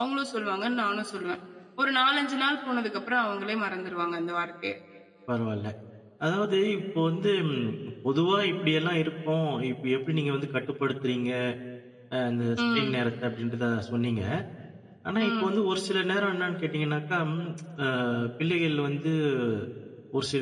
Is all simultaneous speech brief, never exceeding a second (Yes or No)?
Yes